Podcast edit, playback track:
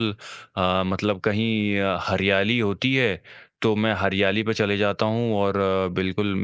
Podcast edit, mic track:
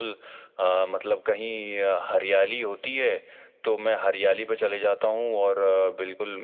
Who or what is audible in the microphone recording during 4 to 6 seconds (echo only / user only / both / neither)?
echo only